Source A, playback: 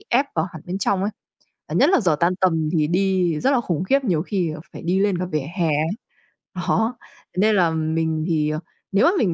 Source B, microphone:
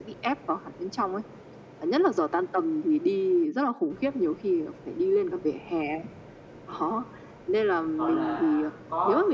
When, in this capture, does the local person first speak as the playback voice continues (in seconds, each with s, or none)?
8.0 s